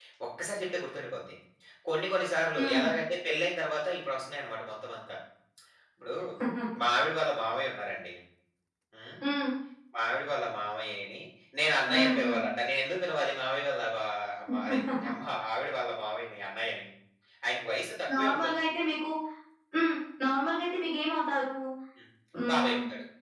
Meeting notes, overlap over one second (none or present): none